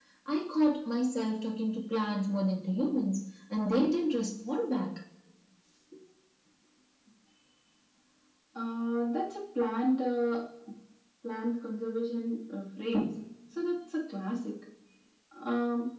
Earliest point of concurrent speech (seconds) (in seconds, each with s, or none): none